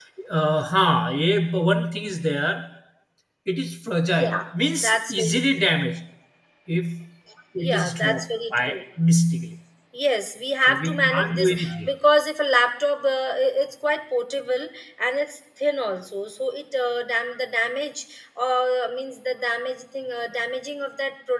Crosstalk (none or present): present